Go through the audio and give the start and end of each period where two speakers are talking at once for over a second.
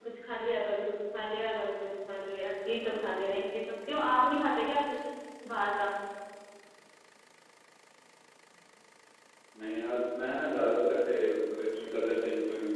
none

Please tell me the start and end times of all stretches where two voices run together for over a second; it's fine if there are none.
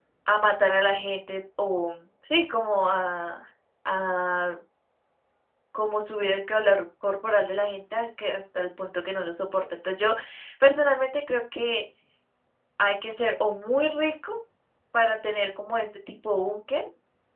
none

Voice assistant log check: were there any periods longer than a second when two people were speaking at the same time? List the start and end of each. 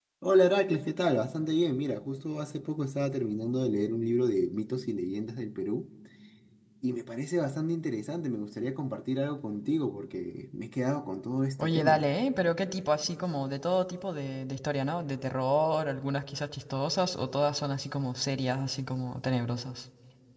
none

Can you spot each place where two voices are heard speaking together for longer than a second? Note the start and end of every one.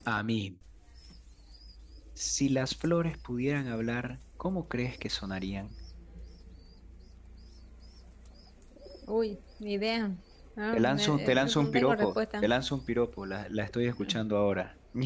10.7-12.5

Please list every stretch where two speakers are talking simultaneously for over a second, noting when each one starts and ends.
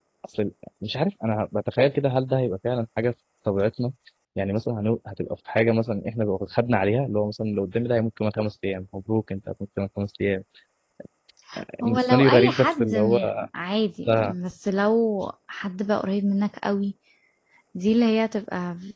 11.8-13.2

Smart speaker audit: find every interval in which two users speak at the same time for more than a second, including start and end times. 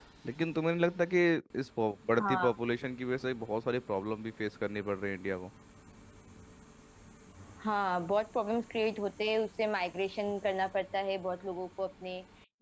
none

